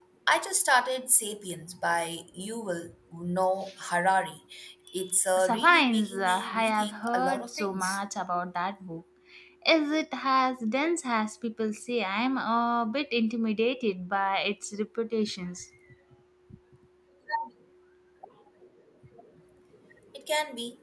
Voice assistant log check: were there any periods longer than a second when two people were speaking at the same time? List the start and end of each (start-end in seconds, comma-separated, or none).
5.4-8.0